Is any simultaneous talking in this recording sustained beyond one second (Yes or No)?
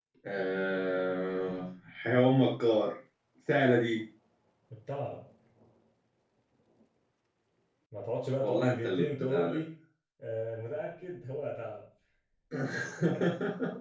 Yes